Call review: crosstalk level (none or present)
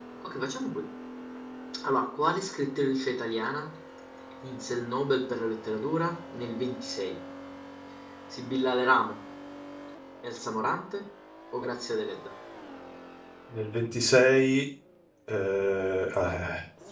none